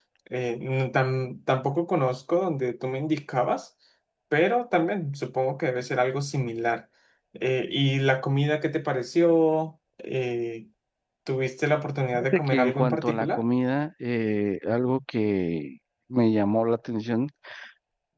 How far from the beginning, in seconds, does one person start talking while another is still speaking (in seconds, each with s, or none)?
12.1 s